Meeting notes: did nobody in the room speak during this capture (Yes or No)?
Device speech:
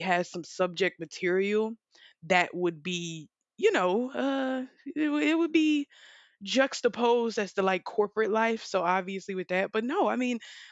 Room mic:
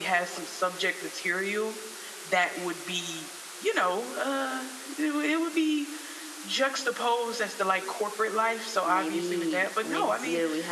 No